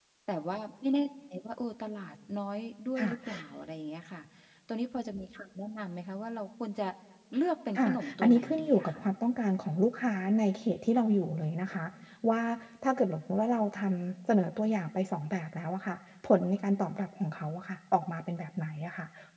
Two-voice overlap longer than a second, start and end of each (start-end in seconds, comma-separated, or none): 7.8-9.0